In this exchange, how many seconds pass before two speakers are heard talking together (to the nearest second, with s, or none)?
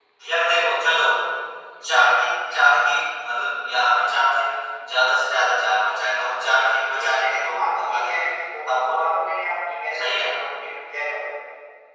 7 s